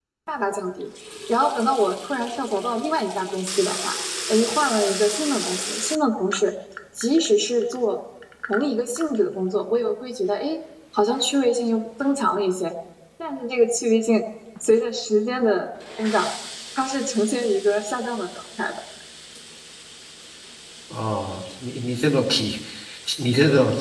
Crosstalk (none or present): none